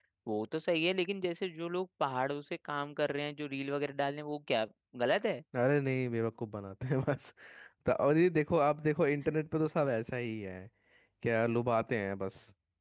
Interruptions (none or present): none